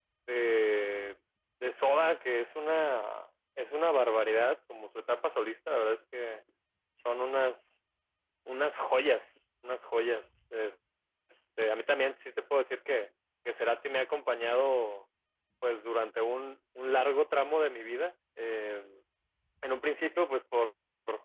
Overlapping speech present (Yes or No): No